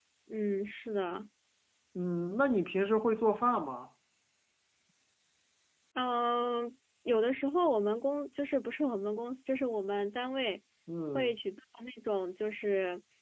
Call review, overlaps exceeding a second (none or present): none